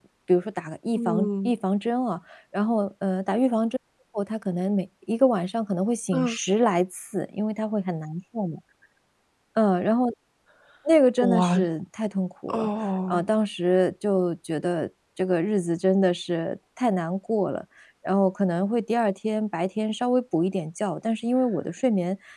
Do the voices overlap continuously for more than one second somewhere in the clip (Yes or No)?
No